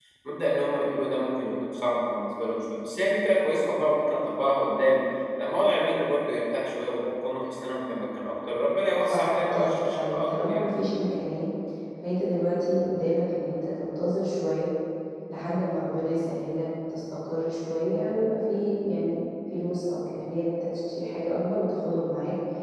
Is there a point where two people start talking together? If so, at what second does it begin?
9.1 s

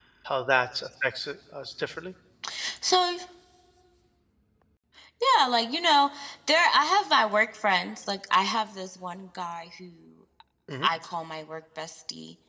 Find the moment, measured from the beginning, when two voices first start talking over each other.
none

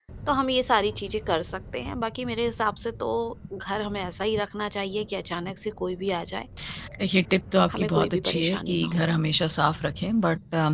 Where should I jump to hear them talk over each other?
7.7 s

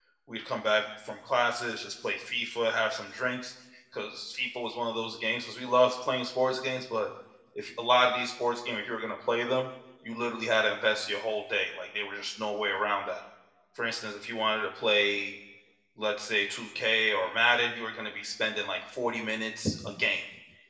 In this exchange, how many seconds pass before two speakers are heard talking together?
none

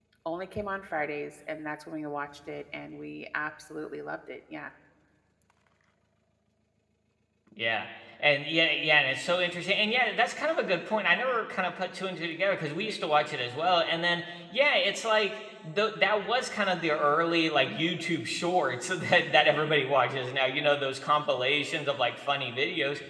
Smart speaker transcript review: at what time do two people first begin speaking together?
none

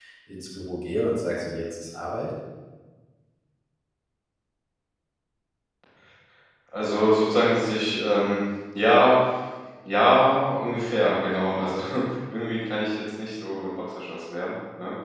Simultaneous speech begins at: none

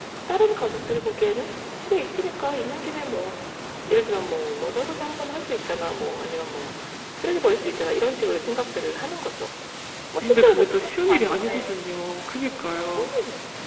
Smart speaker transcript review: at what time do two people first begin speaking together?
10.2 s

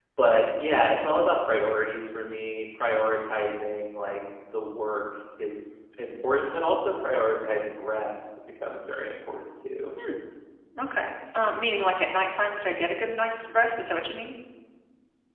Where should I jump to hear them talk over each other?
none

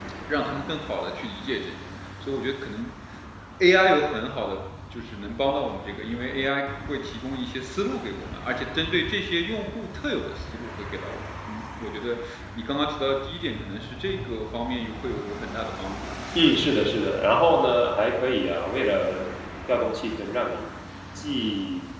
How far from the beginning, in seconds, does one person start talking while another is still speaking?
none

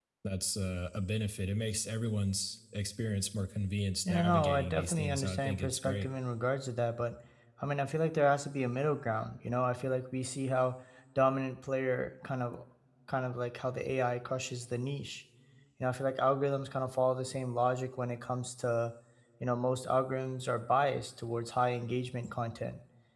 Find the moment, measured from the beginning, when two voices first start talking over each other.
4.0 s

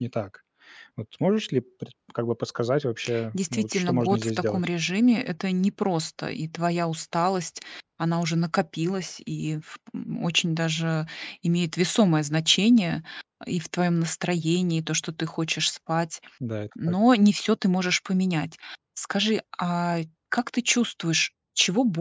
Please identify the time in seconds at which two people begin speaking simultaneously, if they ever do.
3.3 s

